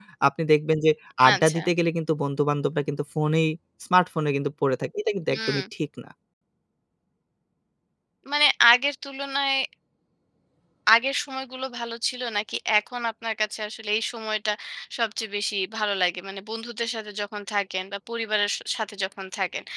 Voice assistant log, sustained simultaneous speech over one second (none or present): none